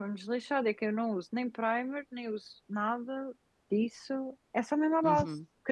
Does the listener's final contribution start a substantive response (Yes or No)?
Yes